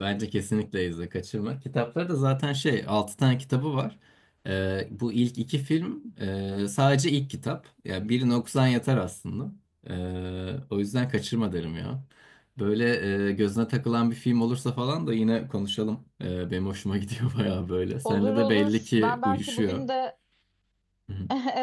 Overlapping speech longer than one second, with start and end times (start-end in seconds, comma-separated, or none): 18.1-19.9